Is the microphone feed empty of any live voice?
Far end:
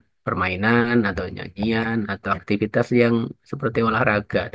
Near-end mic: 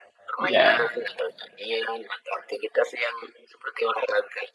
No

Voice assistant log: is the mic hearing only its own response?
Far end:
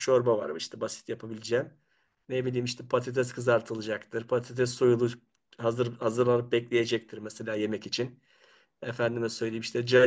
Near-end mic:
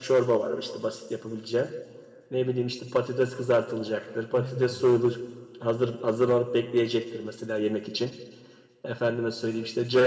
No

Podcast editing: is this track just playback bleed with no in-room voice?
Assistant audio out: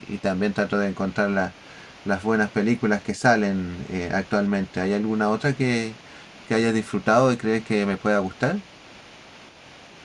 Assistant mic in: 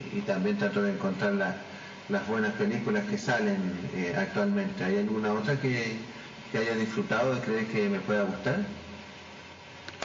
Yes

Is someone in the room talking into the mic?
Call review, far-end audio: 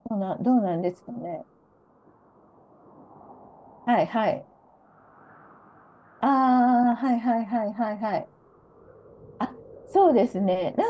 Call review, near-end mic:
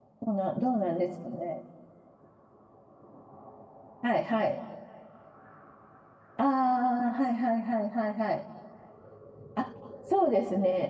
No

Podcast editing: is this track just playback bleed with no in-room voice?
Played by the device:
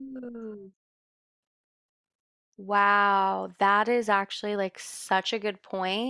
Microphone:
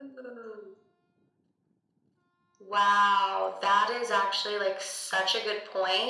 Yes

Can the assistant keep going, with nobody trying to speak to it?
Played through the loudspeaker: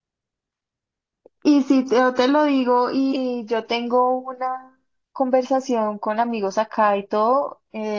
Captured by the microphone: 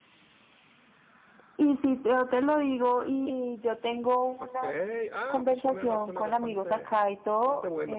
No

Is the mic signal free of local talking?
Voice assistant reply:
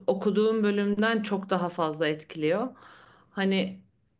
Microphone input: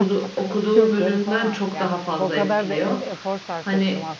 No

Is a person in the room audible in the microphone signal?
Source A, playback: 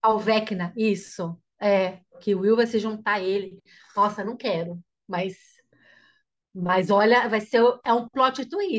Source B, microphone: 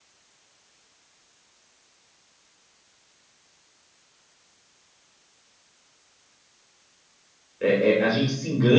Yes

